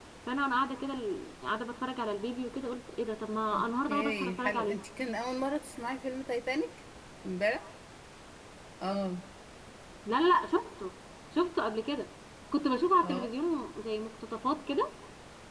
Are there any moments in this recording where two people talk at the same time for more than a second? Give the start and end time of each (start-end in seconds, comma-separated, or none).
3.5-4.8